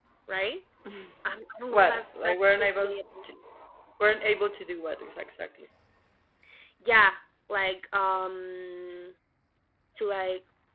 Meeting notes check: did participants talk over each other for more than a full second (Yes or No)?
Yes